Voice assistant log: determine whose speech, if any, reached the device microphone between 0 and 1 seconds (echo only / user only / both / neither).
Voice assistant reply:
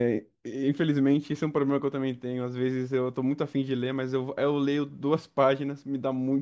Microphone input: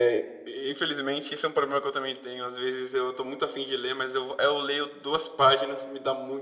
echo only